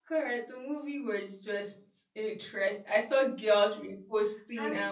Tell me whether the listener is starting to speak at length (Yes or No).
No